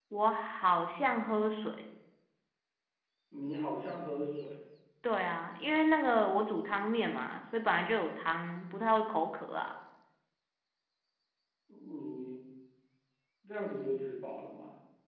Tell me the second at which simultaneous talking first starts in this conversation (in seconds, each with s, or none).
none